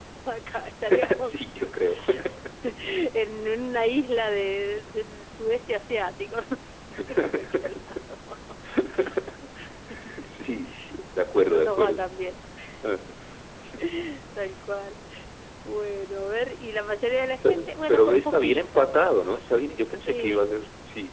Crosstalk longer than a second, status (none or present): present